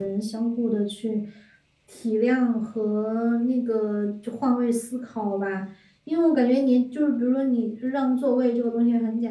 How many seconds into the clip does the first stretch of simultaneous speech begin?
none

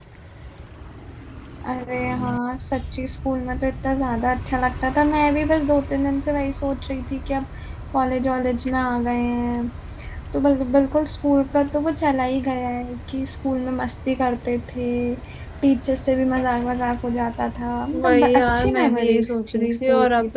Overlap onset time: 17.9 s

